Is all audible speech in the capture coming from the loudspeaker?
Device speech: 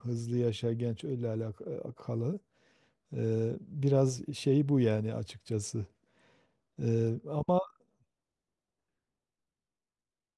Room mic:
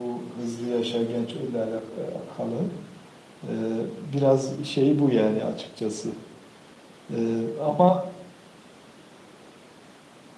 Yes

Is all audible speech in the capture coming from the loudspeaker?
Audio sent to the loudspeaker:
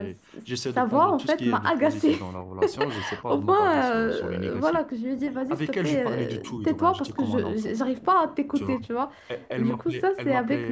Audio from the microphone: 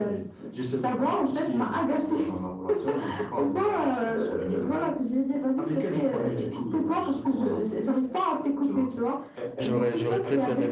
No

